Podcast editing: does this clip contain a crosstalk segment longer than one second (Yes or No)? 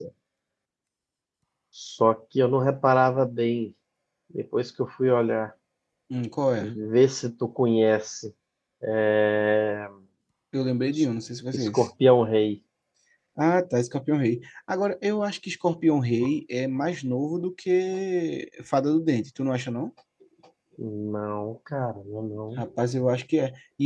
No